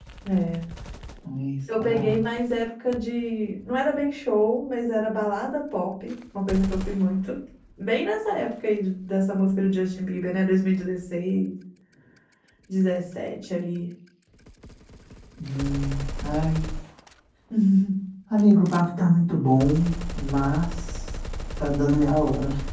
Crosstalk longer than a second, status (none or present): none